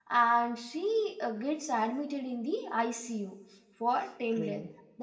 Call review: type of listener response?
listening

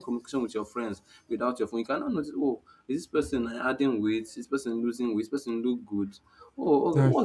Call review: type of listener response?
listening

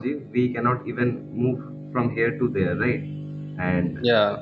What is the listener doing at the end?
listening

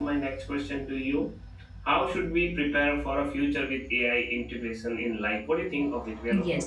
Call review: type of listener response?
taking over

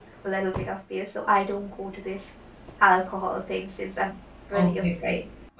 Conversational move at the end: taking over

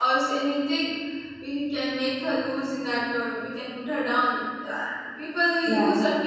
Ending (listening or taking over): listening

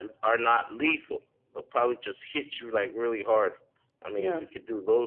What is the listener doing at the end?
listening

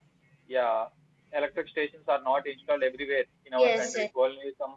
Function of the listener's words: listening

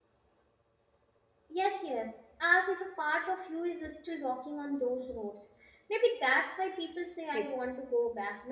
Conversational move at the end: listening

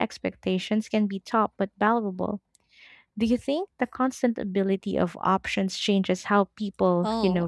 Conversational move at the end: taking over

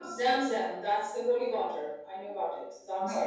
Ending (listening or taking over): taking over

